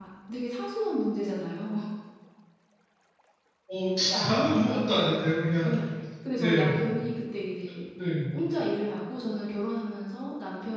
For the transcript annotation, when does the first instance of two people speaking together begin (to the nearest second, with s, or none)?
4 s